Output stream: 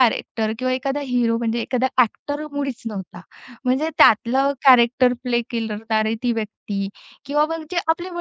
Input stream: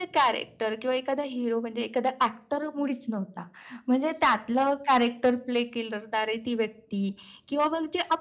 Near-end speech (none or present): none